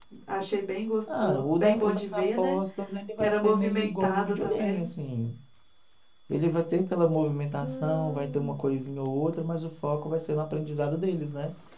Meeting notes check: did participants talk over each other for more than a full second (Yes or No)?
Yes